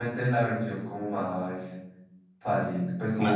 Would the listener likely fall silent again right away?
Yes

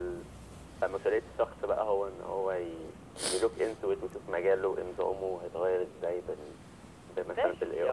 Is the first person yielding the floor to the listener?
Yes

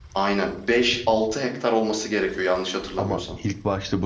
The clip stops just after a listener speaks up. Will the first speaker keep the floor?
No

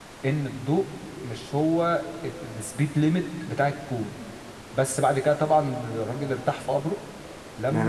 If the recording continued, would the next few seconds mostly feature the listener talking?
Yes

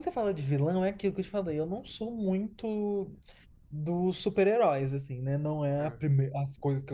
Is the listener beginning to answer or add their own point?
No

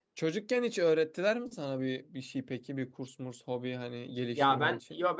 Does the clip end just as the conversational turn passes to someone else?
Yes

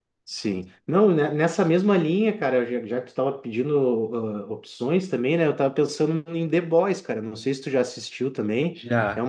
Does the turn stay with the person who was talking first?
Yes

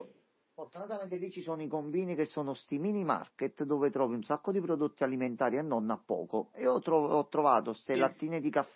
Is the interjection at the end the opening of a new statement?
No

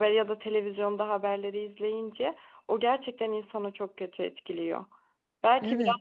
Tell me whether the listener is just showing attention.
Yes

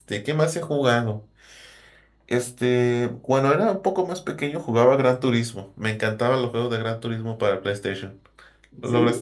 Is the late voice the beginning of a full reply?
Yes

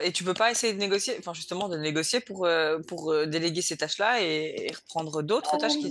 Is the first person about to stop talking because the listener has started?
Yes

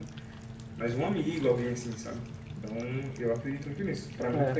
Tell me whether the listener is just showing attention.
No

